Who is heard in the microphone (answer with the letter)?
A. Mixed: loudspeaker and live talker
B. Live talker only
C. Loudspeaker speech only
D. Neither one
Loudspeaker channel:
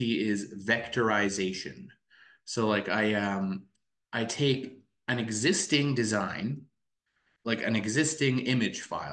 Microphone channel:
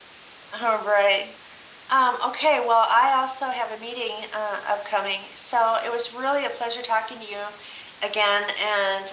B